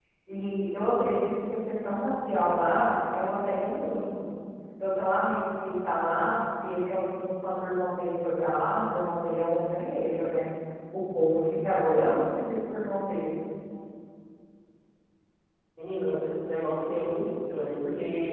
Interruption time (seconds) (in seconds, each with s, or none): none